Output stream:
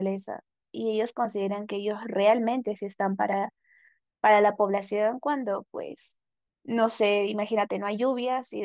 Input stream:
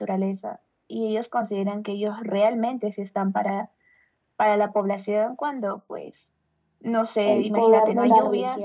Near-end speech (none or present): present